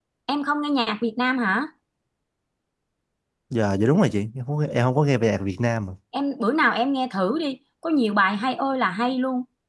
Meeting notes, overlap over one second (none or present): none